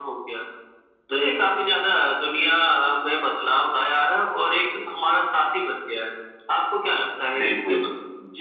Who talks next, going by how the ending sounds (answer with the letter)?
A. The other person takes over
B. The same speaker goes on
A